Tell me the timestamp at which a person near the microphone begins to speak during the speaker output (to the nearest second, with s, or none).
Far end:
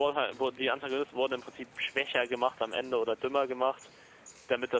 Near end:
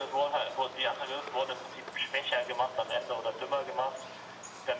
none